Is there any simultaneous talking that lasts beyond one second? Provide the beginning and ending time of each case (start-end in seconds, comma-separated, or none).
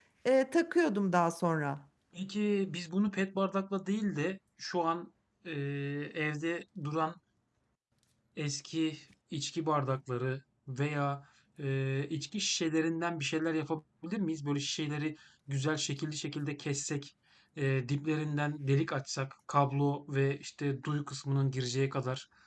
none